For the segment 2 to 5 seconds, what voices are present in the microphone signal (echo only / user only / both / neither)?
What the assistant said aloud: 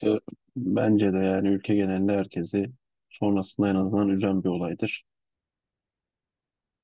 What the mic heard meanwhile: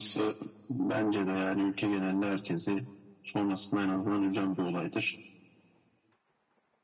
echo only